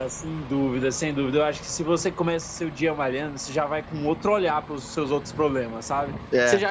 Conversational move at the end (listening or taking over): listening